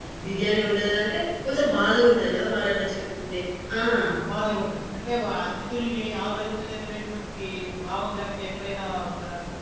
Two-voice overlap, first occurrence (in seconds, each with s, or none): none